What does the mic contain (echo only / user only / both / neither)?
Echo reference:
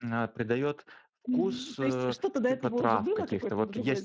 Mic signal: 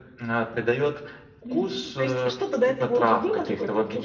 echo only